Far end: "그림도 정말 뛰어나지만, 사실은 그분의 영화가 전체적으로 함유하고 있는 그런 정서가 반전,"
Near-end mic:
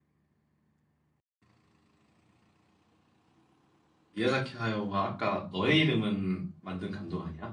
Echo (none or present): none